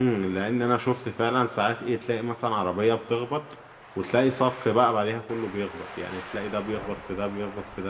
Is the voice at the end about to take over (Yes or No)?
No